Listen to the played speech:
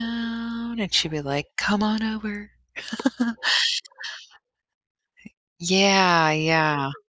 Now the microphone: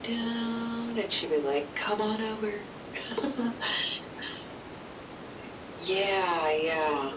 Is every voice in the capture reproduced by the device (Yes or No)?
Yes